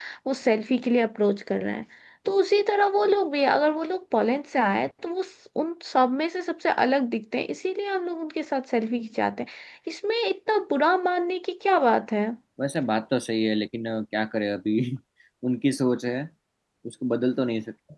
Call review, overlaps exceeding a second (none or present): none